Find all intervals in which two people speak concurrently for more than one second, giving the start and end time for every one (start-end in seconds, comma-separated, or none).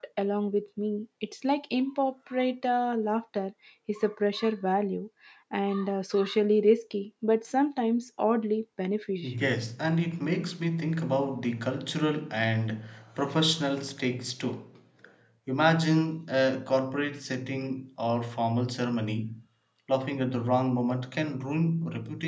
none